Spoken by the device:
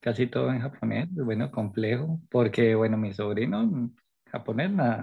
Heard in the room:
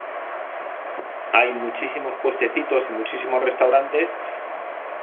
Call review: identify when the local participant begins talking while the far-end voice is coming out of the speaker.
1 s

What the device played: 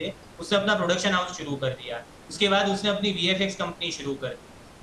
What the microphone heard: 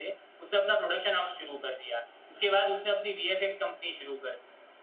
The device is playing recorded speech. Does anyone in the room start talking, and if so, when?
none

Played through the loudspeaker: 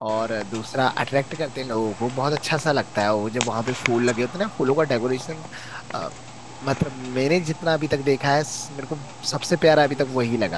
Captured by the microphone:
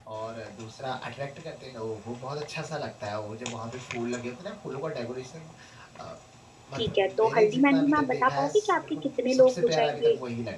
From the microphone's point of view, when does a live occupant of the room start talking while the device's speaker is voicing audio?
7 s

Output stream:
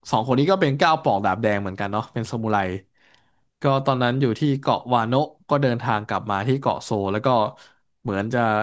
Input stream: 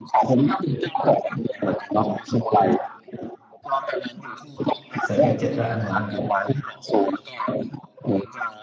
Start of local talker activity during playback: 5 s

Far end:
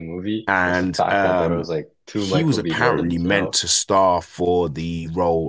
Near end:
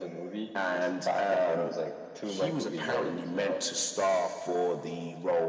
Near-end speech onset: none

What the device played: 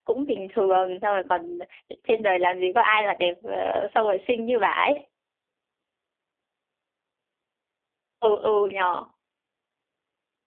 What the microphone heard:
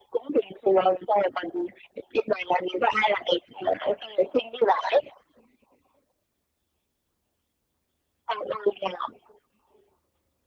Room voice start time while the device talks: none

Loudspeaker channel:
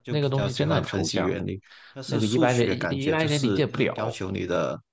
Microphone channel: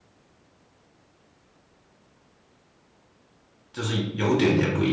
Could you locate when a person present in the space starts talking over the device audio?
4 s

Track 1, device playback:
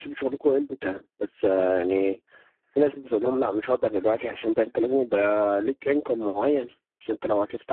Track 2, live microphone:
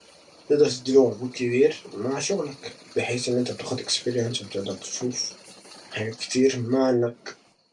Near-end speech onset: 0 s

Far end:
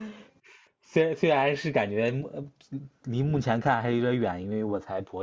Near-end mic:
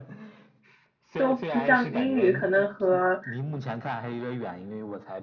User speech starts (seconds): 1 s

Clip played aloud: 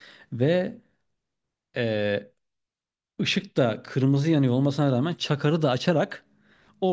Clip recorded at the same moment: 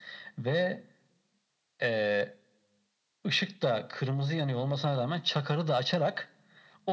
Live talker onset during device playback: none

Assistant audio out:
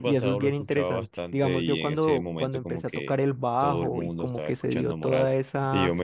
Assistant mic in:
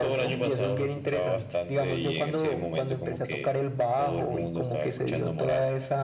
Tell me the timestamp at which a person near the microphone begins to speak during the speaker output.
none

